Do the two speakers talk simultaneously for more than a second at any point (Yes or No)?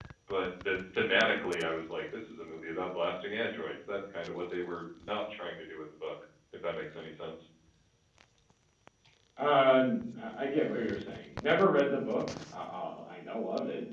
No